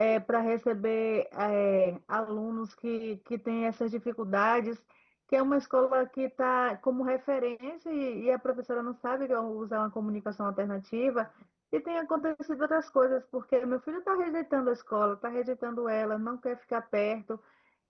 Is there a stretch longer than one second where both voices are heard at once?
No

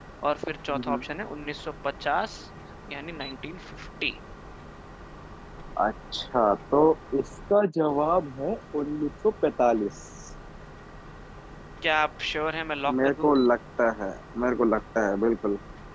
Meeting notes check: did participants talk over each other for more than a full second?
No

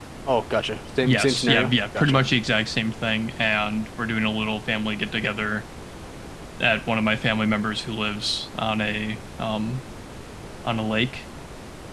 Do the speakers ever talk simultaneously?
Yes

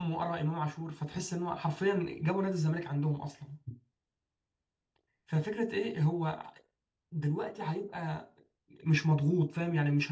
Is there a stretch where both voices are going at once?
No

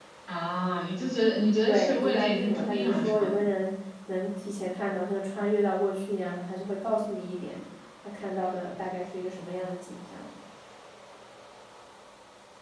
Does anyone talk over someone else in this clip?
Yes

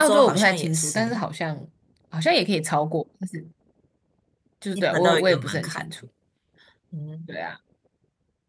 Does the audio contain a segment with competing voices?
Yes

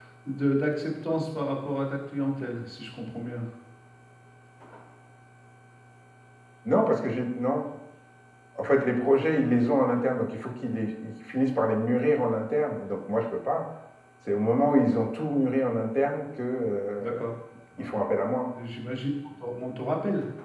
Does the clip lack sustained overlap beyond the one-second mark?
Yes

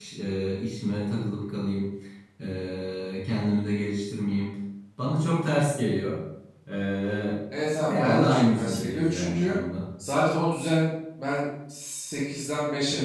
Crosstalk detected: Yes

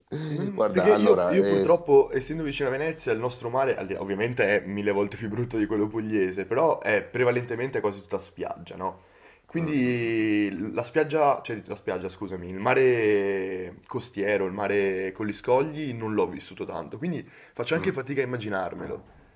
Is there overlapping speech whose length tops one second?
Yes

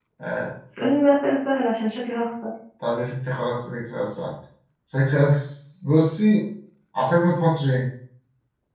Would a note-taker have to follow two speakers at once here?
No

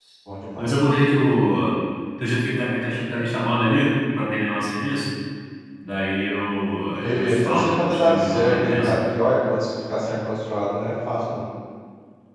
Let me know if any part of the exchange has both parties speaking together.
Yes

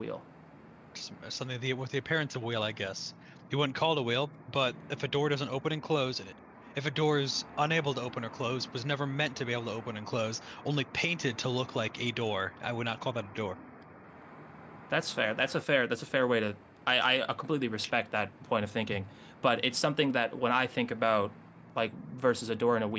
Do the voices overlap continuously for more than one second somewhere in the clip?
No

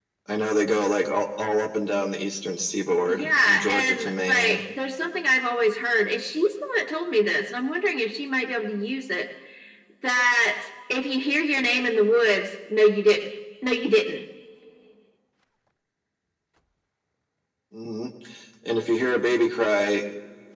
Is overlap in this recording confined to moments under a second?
No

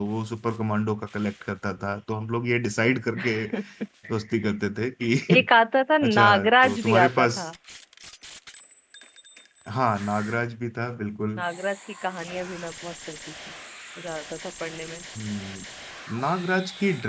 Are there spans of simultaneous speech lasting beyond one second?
Yes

